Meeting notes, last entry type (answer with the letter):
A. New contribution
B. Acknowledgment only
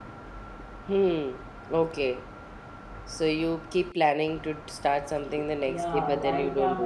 A